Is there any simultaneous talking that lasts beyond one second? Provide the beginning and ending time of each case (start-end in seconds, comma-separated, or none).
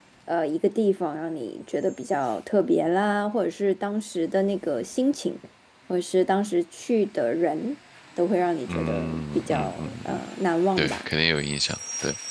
8.8-10.2